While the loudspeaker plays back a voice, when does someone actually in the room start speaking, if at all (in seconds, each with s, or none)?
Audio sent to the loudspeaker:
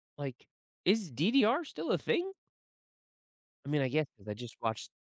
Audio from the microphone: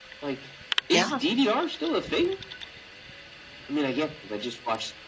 0.9 s